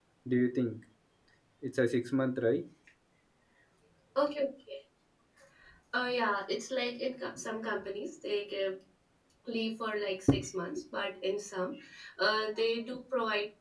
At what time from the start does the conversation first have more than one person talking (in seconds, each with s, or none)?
none